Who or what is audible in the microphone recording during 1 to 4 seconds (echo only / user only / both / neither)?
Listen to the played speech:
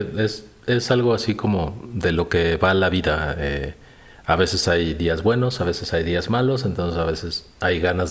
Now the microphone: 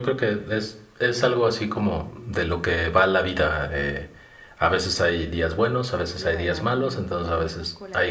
echo only